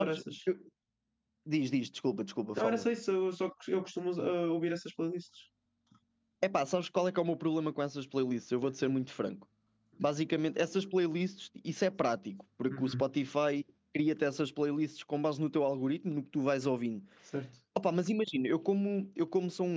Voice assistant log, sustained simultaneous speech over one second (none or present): none